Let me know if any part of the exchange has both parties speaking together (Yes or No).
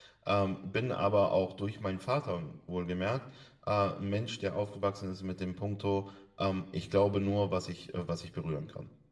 No